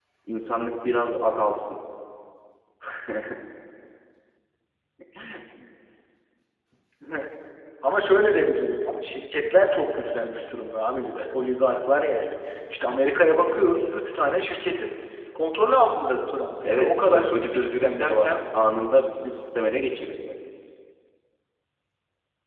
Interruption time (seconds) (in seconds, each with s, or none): 16.6 s